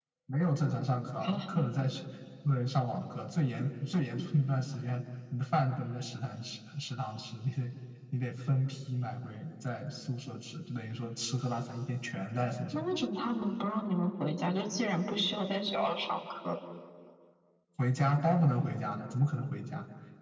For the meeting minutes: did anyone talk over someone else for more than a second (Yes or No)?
No